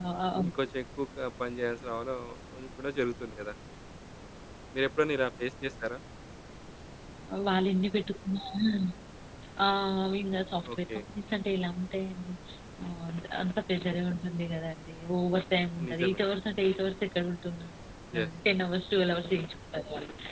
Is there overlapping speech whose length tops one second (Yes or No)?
No